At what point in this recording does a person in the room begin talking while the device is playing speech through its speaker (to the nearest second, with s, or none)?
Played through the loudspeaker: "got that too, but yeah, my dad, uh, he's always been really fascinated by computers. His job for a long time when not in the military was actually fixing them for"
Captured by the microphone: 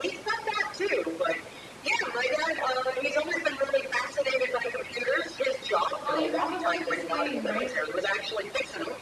6 s